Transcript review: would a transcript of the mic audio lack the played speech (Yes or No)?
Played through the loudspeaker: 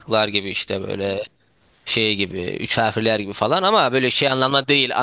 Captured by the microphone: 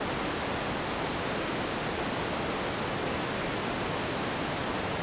Yes